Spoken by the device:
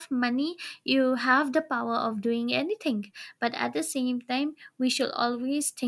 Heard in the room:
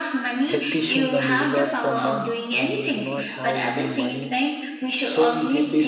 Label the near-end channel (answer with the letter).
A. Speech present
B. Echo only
A